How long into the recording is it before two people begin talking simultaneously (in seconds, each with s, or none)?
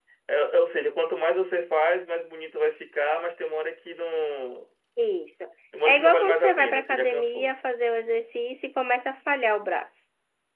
5.8 s